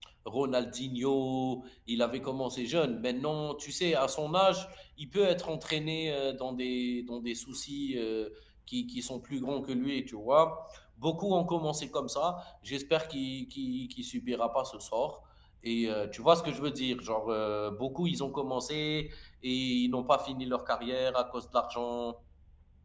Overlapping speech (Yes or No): No